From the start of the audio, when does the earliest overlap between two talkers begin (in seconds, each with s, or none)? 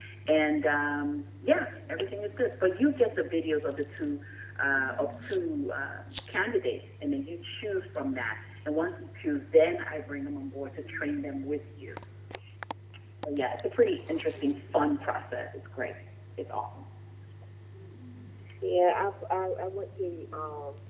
none